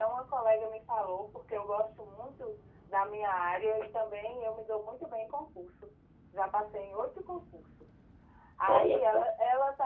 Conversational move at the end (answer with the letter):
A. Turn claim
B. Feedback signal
B